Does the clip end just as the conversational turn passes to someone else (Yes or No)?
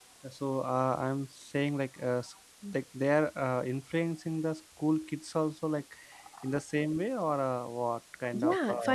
Yes